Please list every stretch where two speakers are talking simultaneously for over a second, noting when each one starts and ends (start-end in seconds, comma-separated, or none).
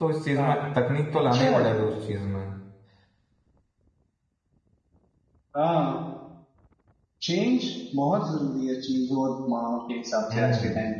none